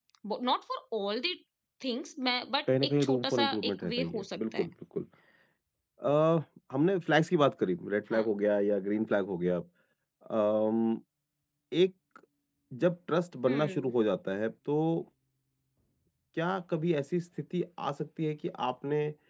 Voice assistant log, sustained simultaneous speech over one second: present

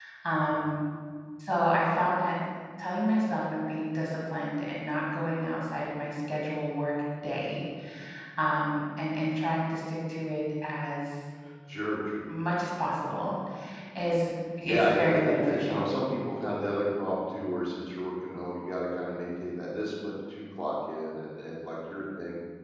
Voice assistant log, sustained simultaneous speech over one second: present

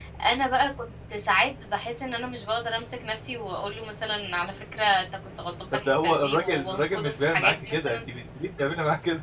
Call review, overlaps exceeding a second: present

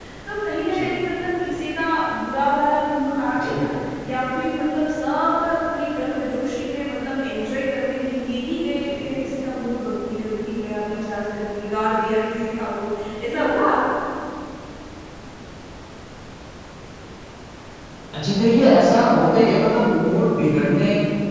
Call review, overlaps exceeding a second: none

